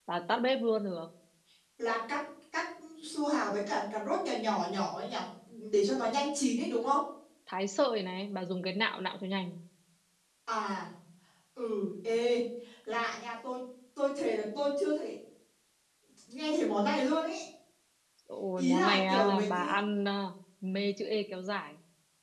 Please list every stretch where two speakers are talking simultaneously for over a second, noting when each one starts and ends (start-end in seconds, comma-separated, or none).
18.6-19.8